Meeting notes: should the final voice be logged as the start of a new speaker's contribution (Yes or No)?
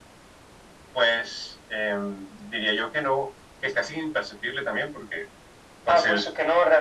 Yes